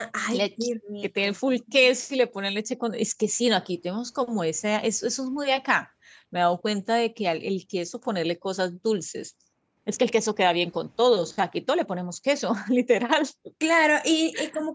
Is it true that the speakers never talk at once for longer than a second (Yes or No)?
Yes